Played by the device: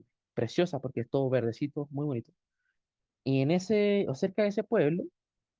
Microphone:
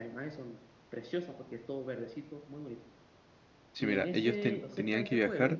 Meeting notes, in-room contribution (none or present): present